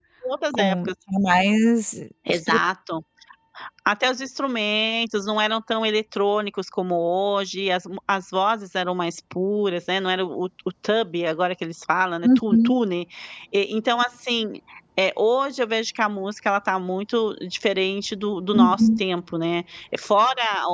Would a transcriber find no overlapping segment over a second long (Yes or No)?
Yes